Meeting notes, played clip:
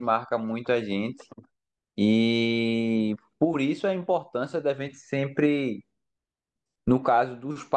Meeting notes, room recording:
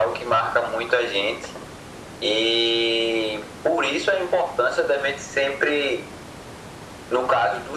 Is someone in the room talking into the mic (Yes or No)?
No